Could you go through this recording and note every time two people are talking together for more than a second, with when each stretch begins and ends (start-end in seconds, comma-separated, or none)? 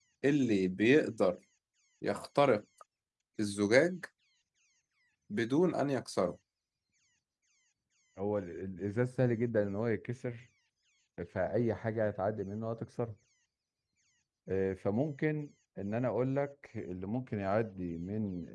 none